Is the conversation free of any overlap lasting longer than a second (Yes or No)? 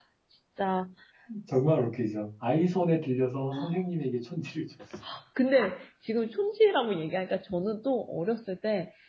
Yes